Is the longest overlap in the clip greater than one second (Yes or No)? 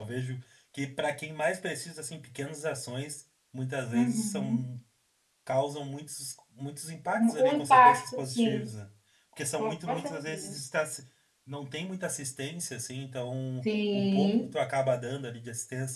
Yes